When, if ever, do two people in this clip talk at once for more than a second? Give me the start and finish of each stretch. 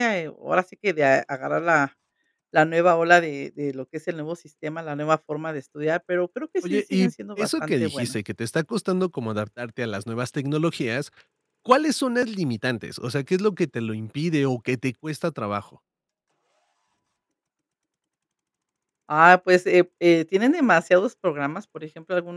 6.7-8.1

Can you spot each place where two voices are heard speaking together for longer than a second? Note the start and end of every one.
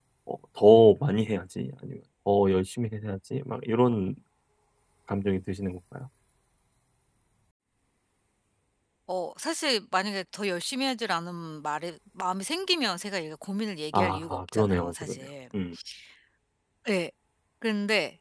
13.9-15.3

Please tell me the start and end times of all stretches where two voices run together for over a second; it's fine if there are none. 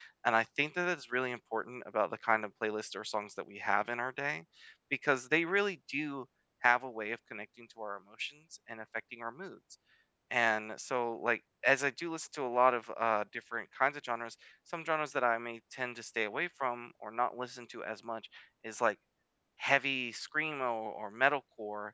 none

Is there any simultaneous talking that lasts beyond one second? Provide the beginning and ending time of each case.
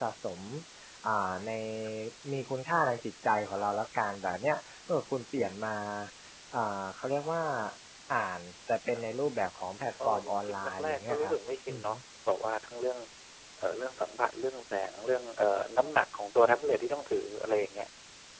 10.0-11.3

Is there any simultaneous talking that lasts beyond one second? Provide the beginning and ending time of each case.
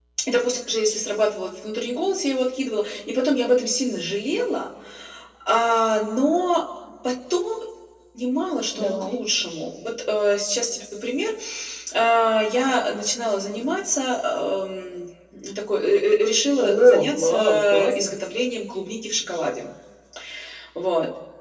16.6-18.1

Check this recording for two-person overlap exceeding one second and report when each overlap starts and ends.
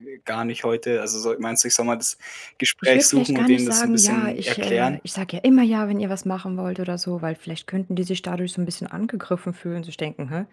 2.8-5.0

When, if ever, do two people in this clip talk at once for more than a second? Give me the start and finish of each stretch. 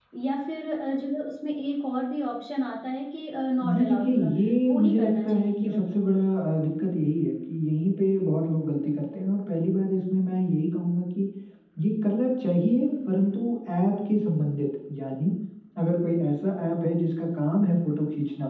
3.6-5.9

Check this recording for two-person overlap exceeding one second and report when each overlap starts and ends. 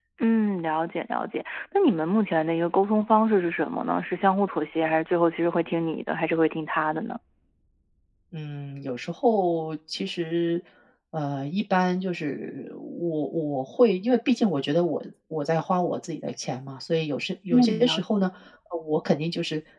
none

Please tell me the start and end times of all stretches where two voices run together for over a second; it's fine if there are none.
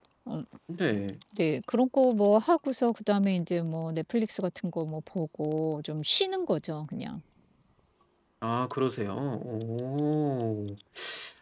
none

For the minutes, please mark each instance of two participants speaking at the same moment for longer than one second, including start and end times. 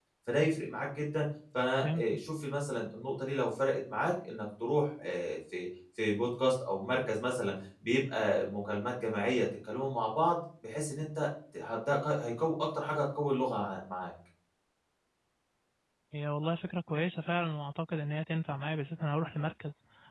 none

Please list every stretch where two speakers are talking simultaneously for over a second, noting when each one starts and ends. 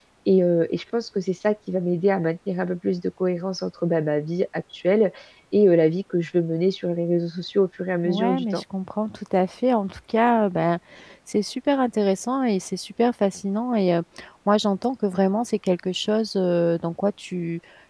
none

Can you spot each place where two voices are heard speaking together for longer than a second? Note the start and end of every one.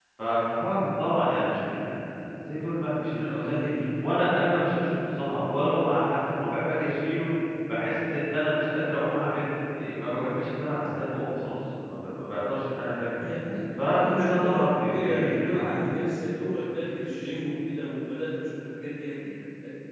13.8-15.9

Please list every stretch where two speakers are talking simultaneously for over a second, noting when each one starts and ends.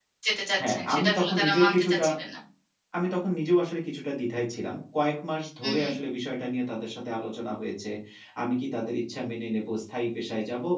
0.7-2.1

